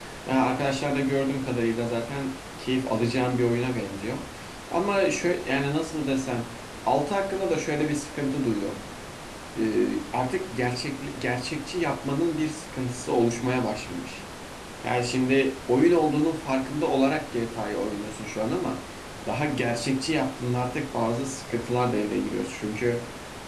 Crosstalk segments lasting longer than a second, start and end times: none

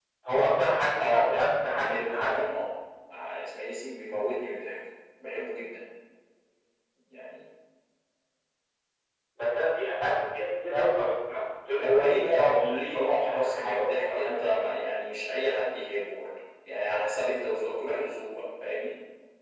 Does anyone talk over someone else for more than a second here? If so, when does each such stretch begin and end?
1.0-2.4, 11.8-14.4

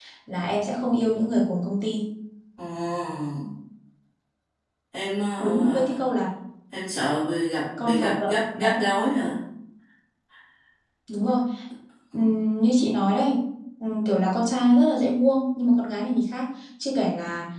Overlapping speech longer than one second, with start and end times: 7.8-9.1

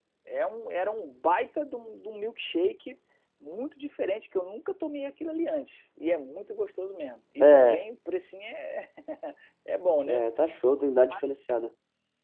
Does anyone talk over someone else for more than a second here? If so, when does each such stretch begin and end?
none

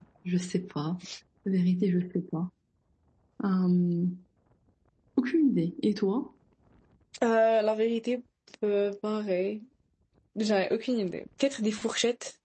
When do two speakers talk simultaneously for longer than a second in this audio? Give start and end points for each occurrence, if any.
none

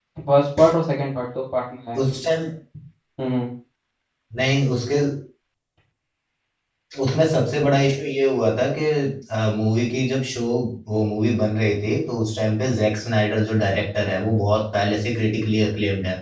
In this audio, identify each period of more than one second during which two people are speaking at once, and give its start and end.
none

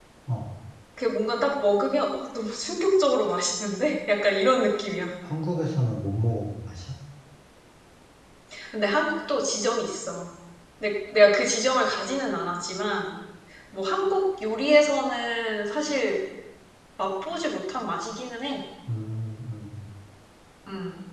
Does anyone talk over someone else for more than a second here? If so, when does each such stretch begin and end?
none

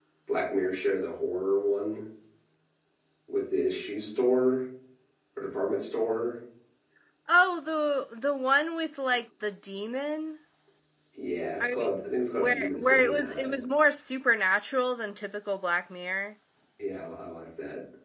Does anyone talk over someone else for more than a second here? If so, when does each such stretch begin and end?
12.4-13.6

